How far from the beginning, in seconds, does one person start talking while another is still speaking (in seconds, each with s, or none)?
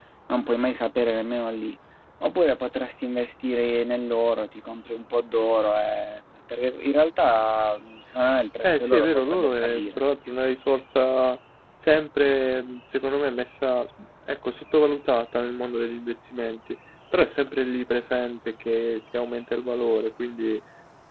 8.6 s